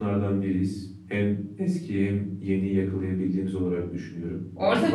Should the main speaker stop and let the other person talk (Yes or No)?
Yes